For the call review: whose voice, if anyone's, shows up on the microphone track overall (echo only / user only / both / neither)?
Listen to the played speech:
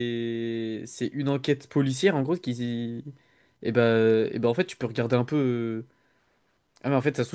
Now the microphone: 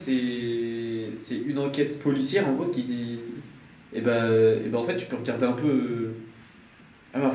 echo only